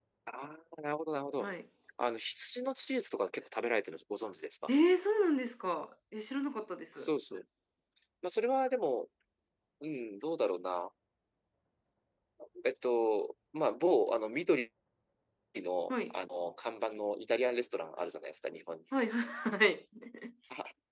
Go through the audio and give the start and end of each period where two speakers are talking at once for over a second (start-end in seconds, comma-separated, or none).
none